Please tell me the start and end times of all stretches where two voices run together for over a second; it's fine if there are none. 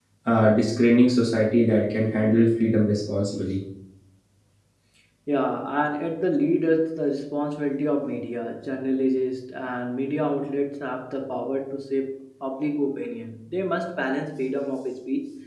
none

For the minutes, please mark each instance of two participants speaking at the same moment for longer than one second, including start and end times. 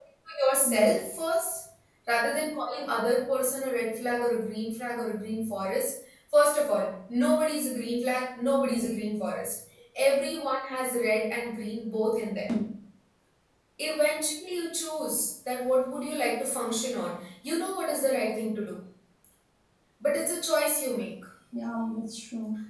none

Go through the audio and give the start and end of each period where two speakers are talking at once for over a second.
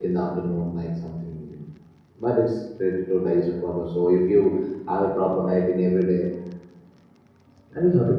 none

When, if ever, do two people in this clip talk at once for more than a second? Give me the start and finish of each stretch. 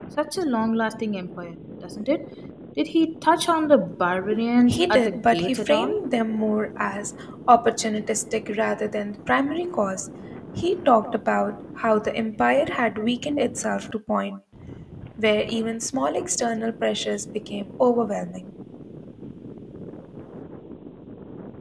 4.7-6.0

